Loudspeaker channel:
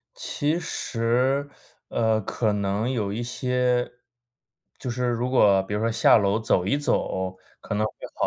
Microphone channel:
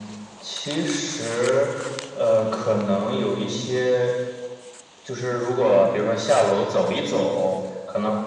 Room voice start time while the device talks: none

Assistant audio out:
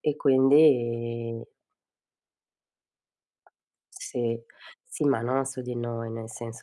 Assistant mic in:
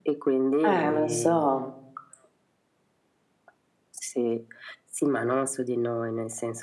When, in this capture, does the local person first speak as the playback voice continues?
1 s

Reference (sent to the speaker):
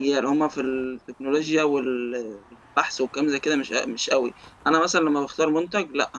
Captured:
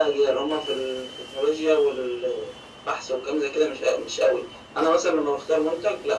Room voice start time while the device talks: none

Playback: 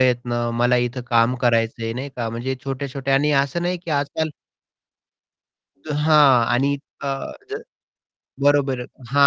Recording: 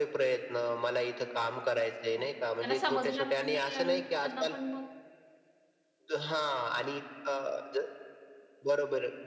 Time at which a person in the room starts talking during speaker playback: 2 s

